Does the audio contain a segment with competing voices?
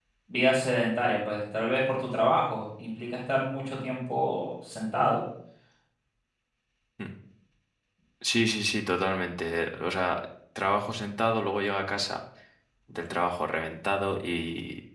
No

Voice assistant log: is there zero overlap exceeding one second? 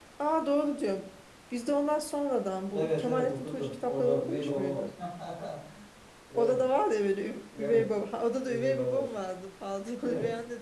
No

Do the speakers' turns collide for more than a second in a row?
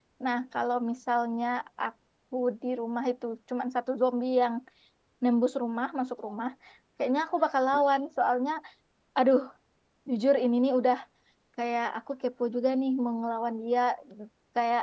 No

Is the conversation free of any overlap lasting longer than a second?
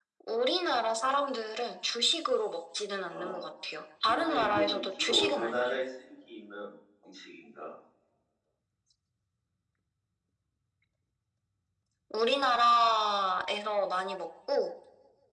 No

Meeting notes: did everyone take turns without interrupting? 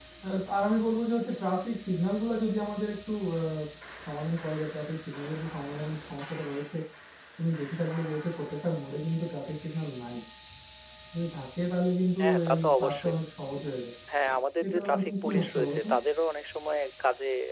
No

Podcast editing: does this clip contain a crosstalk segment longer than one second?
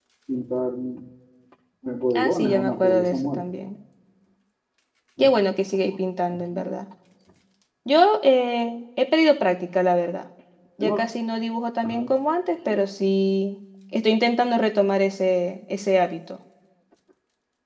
Yes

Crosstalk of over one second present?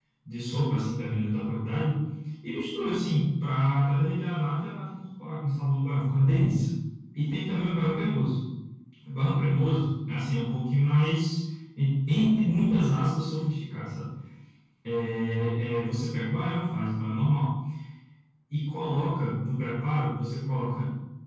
No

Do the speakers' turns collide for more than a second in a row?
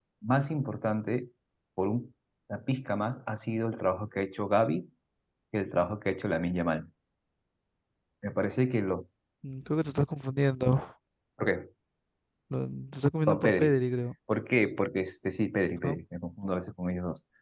No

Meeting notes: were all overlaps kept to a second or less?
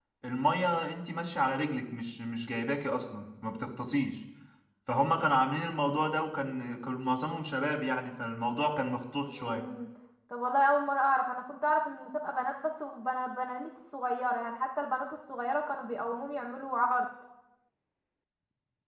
Yes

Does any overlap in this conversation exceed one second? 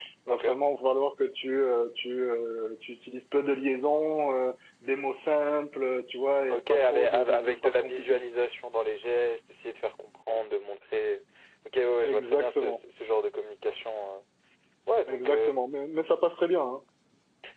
Yes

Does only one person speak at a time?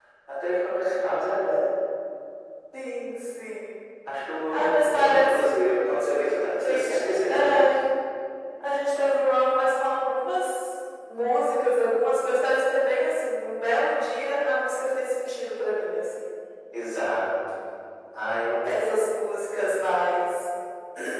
No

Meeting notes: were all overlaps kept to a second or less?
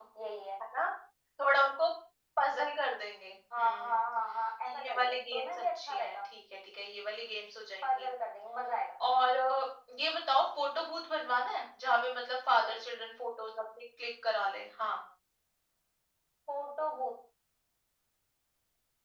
No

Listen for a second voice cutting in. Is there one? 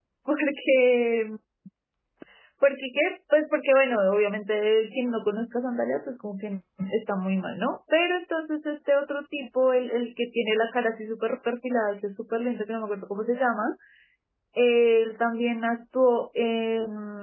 No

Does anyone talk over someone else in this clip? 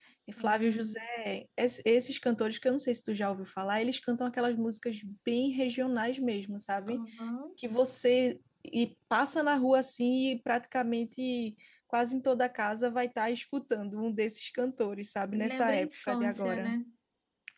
Yes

